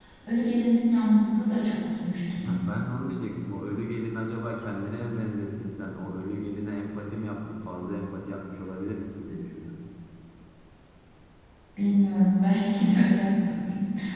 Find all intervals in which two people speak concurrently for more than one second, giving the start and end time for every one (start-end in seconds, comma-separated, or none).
none